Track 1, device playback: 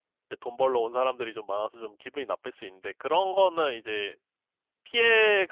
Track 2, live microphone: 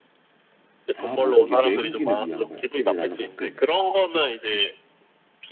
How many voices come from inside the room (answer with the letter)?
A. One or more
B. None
A